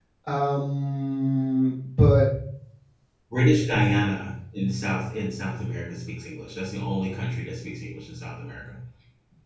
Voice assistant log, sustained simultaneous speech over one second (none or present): none